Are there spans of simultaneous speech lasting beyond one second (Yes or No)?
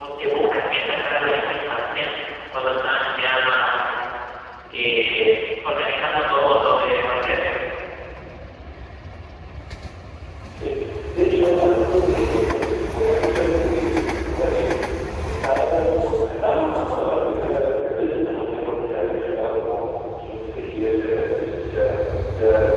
No